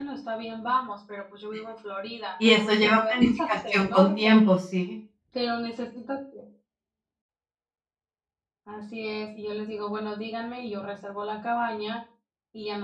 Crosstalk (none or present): present